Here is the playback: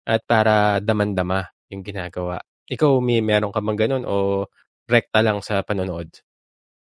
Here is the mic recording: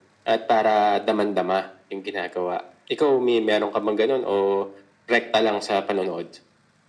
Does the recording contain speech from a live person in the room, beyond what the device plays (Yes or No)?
No